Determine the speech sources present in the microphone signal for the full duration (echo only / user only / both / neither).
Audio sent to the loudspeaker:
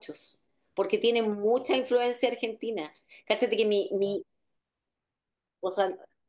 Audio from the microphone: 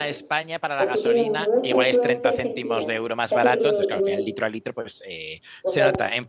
both